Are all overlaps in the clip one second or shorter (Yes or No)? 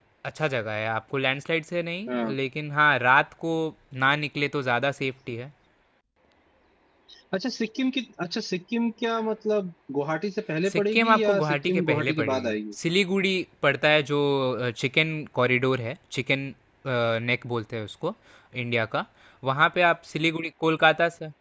No